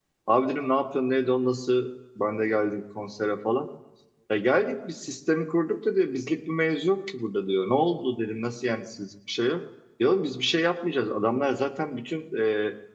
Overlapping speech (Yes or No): No